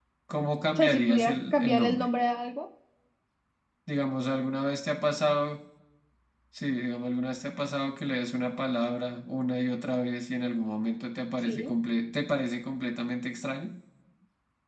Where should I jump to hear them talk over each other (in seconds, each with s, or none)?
0.8 s